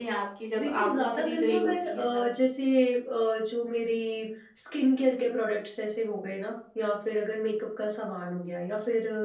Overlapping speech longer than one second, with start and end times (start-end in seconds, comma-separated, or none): 0.6-2.2